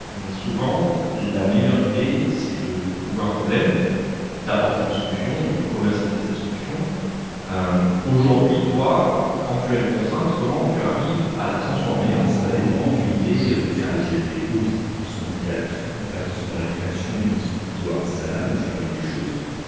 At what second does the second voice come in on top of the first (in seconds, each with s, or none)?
12.1 s